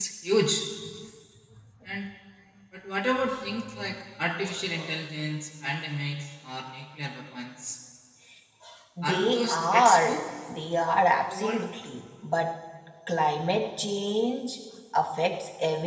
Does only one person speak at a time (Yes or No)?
No